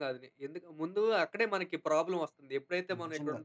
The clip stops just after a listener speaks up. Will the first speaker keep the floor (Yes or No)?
Yes